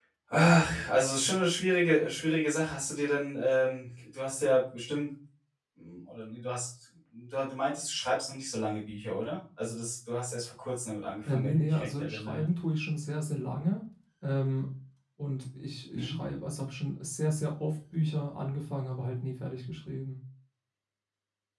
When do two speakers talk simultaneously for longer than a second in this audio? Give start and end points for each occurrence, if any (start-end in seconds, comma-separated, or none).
11.3-12.5